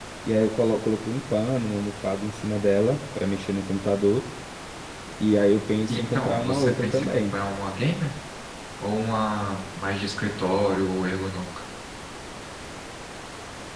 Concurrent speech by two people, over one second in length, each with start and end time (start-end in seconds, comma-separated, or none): 5.9-7.3